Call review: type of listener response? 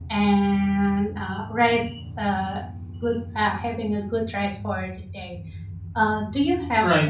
listening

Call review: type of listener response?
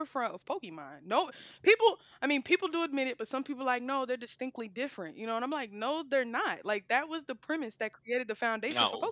listening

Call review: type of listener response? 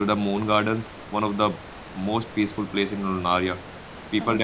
listening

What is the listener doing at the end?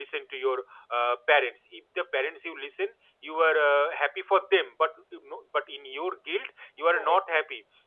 listening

